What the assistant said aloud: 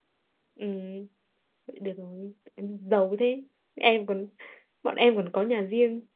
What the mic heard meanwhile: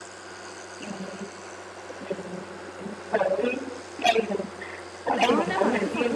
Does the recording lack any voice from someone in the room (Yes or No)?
No